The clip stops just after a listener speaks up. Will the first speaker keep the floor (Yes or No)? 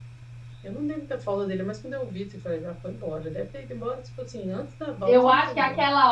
No